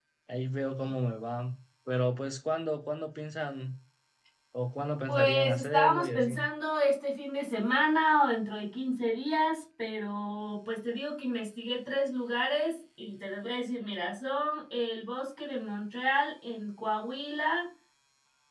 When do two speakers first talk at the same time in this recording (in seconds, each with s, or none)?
5.1 s